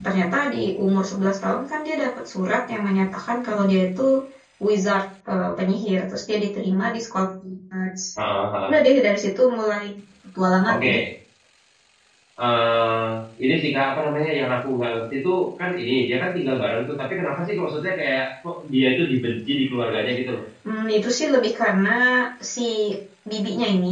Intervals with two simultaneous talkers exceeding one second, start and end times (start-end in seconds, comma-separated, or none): none